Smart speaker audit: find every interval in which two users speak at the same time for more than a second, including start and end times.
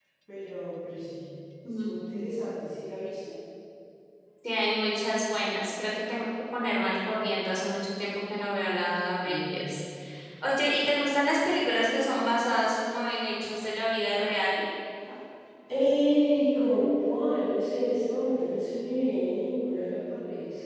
none

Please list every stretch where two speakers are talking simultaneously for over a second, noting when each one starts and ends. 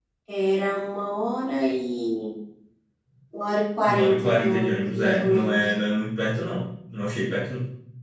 3.9-5.6

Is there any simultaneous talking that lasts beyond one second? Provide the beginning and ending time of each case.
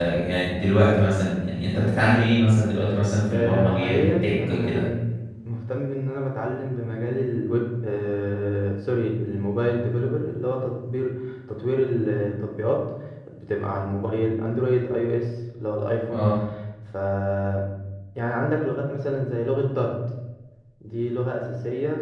3.3-4.8

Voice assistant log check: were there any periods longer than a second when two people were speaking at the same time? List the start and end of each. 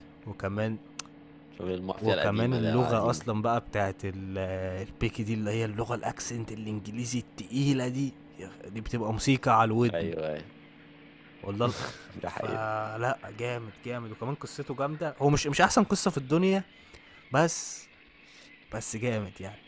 2.0-3.2

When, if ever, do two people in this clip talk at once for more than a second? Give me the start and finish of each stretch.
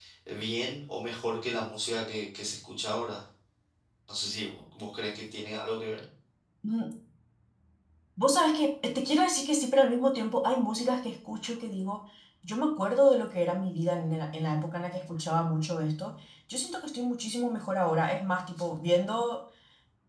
none

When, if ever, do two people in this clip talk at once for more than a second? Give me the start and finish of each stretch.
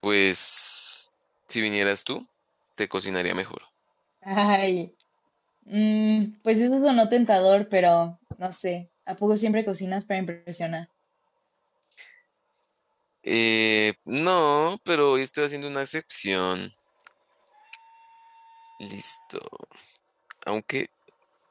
none

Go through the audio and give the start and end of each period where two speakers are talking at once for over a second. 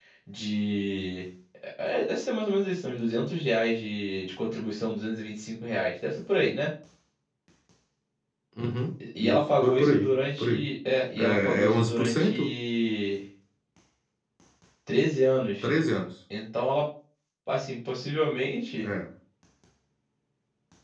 9.2-10.7, 11.2-12.6

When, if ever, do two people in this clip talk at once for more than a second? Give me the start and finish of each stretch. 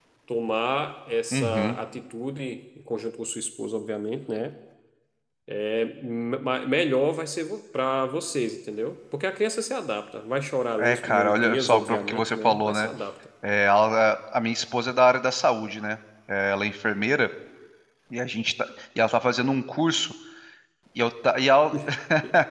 10.8-12.9

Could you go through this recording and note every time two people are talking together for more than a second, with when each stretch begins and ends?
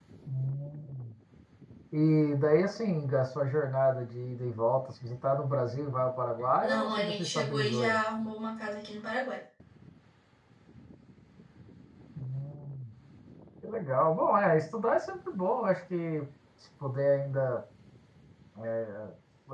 6.6-8.0

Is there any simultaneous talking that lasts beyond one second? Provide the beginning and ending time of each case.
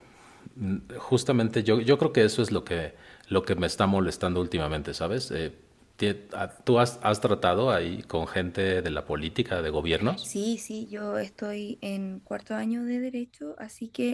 none

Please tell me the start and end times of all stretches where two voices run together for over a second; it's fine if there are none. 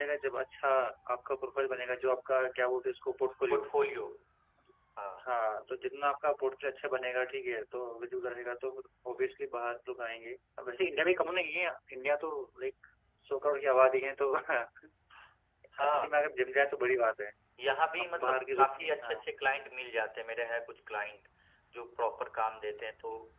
18.0-19.3

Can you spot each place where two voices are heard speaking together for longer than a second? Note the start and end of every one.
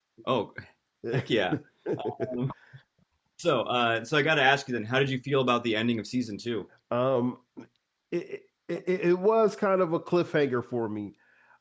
none

